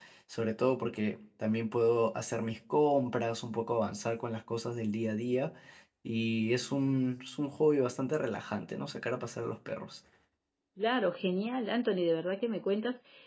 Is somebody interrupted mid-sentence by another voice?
No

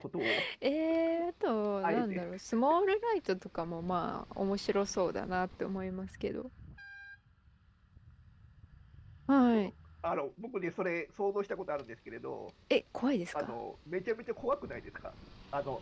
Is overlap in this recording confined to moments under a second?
Yes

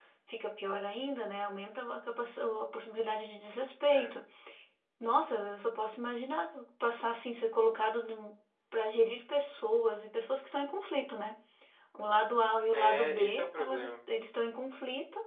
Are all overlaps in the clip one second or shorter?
No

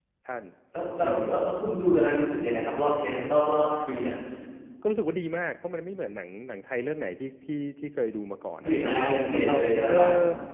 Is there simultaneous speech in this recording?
Yes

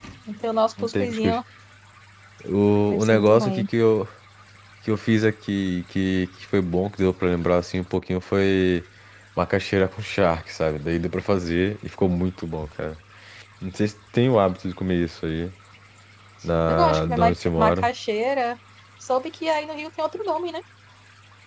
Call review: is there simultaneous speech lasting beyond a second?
Yes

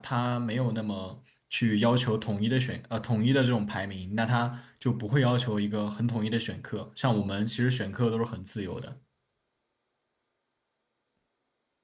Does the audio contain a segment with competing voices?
No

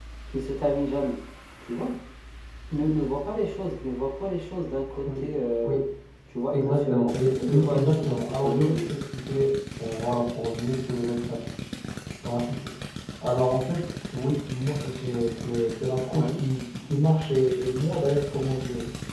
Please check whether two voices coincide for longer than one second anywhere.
Yes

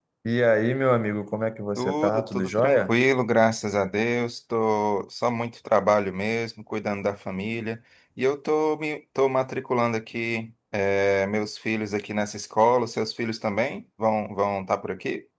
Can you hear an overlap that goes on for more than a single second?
Yes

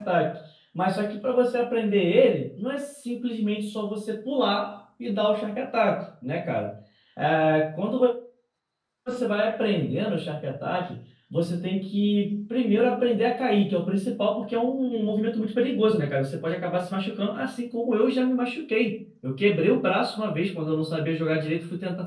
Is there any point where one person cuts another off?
No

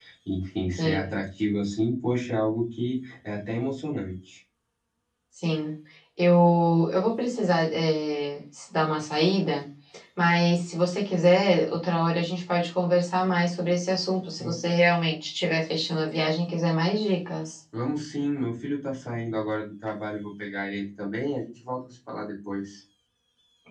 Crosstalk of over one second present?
No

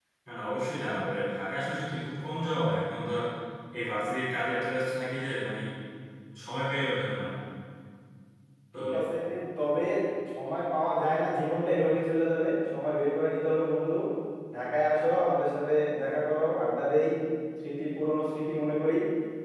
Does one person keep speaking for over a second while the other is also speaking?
No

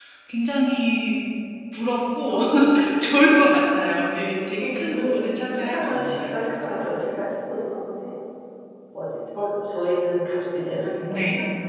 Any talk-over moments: Yes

